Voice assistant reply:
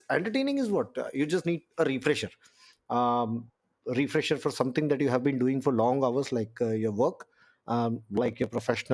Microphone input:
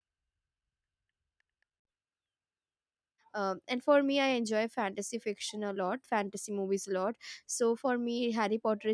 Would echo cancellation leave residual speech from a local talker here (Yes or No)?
Yes